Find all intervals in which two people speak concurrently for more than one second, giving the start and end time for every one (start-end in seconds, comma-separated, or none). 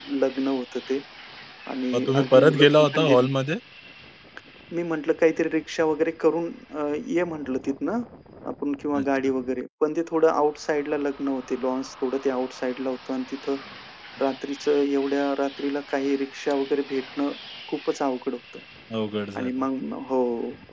1.9-3.3